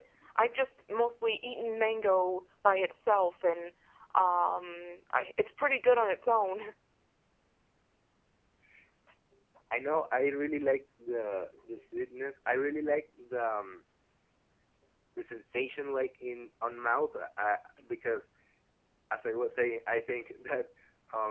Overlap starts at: none

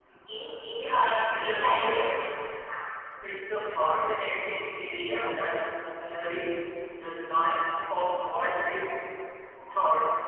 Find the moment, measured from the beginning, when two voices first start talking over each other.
1.1 s

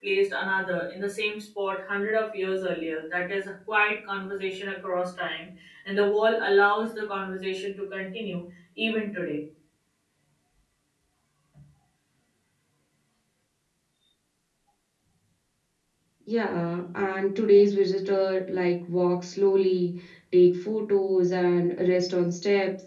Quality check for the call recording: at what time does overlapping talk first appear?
none

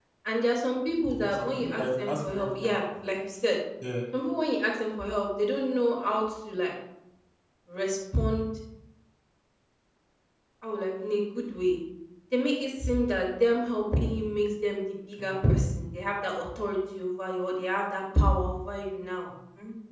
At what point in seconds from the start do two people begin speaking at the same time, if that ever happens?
1.1 s

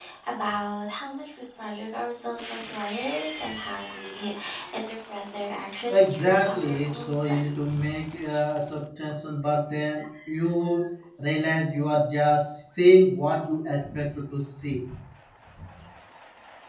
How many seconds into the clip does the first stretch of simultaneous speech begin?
5.9 s

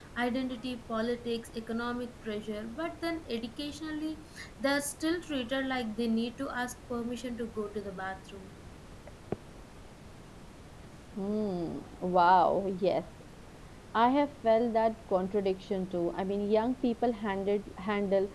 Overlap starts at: none

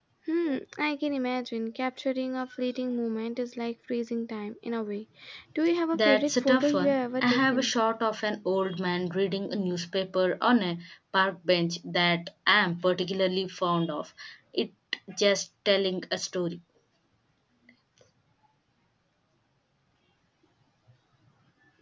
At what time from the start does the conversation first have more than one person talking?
5.9 s

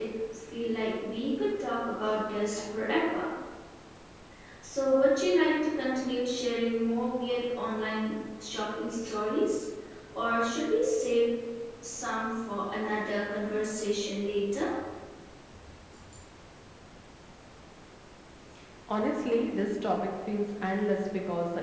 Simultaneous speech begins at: none

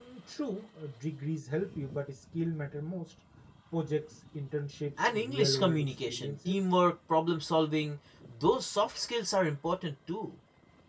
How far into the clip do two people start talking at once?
5.0 s

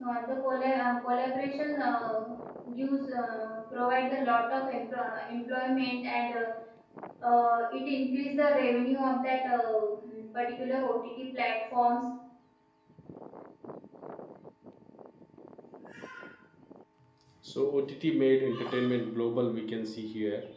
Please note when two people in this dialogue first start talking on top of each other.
none

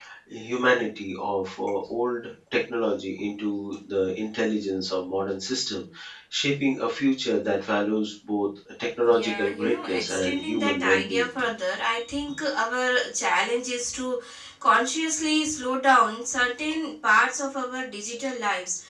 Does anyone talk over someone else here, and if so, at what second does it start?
9.0 s

